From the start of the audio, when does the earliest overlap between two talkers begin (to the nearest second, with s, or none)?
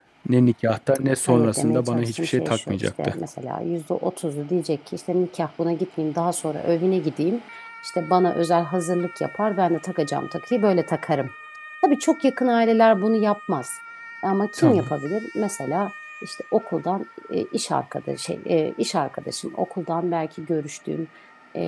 1 s